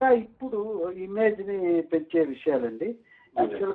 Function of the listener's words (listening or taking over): listening